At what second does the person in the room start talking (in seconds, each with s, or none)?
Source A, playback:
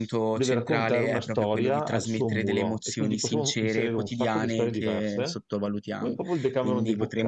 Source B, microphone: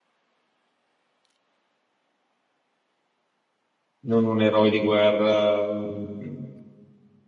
4.0 s